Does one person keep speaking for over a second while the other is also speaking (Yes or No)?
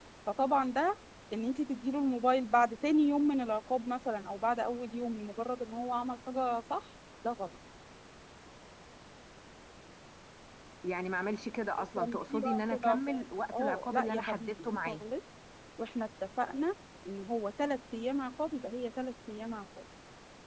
Yes